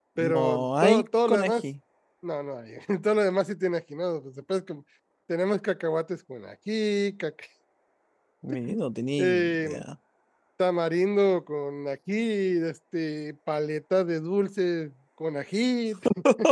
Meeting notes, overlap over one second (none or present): present